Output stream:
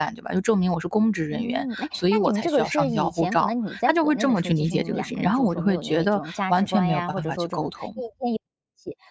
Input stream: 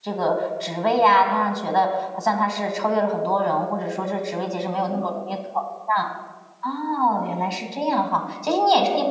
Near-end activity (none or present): present